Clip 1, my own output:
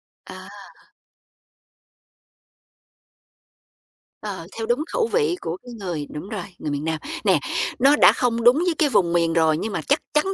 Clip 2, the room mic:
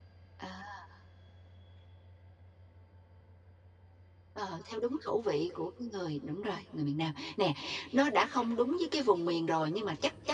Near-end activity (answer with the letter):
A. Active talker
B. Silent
B